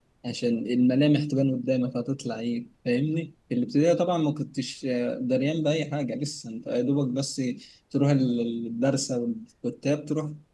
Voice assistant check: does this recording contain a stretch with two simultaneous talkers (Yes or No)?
No